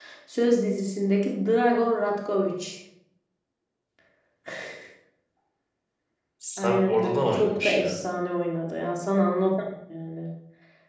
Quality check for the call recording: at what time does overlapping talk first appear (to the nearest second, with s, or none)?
7 s